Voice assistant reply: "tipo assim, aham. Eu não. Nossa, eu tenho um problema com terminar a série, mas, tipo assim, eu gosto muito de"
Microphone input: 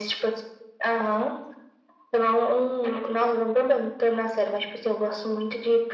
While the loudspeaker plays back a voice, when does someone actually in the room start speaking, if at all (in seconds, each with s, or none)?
none